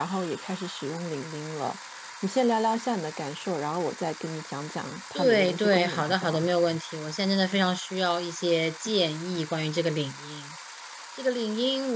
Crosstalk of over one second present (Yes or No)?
Yes